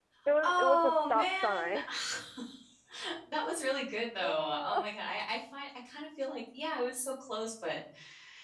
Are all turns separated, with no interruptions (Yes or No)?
No